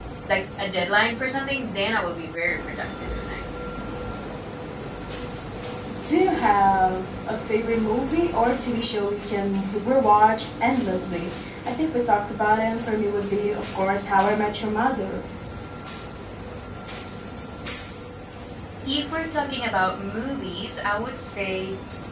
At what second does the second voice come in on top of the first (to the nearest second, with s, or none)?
none